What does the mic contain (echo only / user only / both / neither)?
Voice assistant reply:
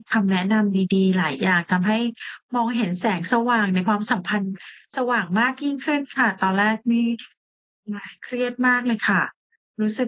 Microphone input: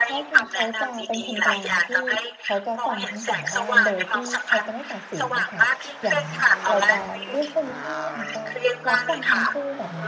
both